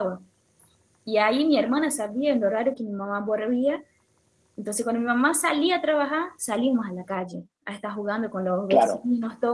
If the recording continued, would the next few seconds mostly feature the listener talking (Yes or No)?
No